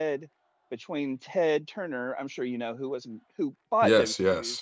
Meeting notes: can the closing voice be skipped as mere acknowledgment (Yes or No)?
Yes